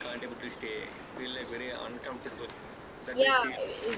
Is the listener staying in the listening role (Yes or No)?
No